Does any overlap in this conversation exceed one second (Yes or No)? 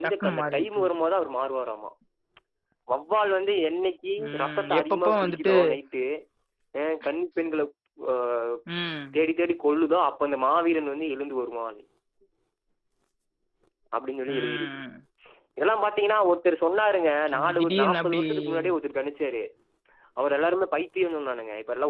Yes